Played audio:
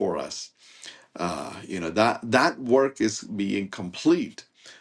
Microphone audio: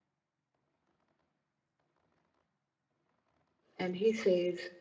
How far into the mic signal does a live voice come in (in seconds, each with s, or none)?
3.8 s